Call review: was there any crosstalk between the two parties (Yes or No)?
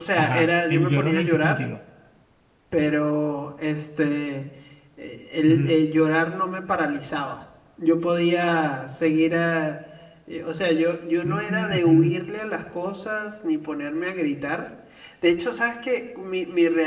Yes